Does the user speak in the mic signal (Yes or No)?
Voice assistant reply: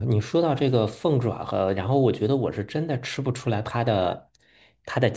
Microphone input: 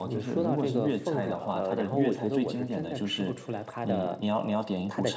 Yes